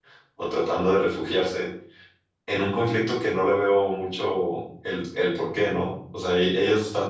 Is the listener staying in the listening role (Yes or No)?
Yes